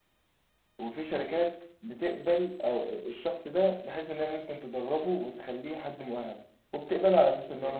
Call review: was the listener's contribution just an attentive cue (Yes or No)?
Yes